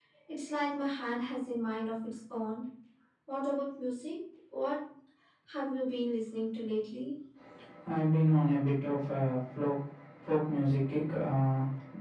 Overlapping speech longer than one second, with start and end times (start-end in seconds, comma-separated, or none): none